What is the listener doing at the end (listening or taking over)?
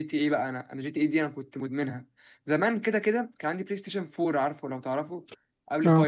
listening